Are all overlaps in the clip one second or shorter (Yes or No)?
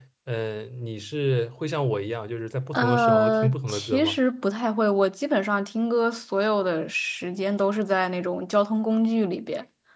No